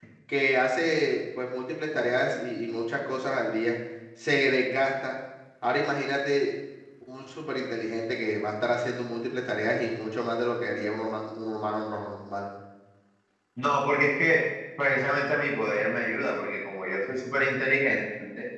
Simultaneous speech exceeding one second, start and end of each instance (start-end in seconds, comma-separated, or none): none